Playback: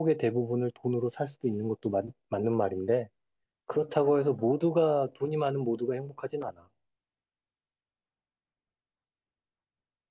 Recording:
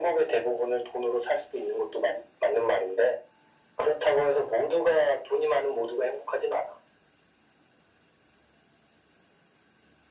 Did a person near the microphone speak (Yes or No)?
No